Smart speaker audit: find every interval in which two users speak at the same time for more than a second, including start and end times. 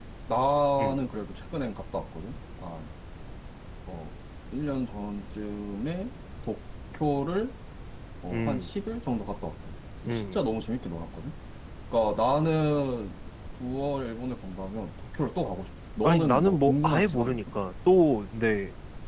16.0-17.4

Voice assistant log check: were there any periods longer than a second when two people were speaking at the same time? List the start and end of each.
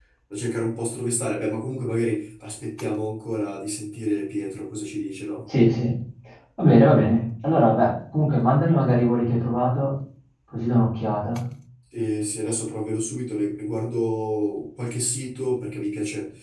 none

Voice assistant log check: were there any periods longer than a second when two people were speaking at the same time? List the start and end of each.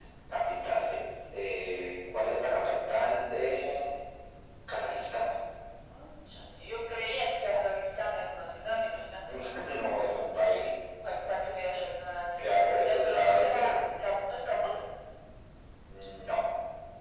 12.4-13.7

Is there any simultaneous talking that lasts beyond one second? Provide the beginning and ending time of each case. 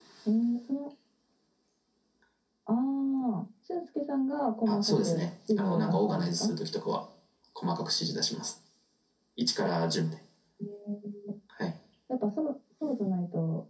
4.7-6.5

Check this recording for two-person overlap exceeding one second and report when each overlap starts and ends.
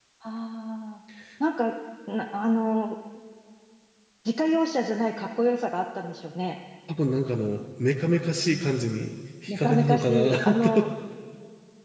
9.5-10.9

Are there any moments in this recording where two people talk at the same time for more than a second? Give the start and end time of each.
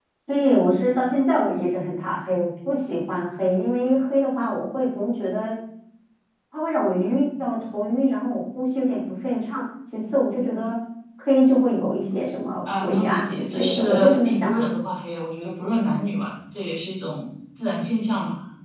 12.8-14.7

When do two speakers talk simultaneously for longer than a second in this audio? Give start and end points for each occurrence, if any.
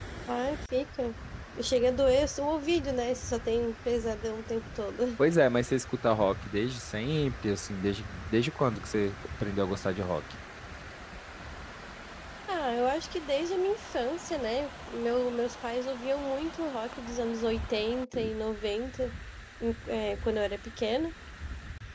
none

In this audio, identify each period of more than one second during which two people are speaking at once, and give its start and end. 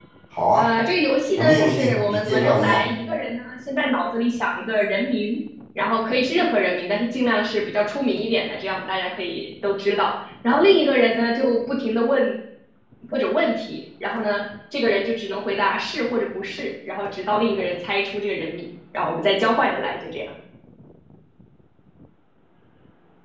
1.3-2.8

